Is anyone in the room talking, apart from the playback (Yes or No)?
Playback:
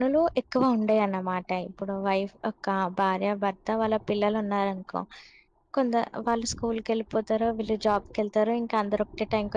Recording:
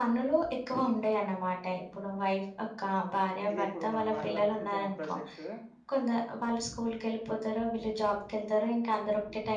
Yes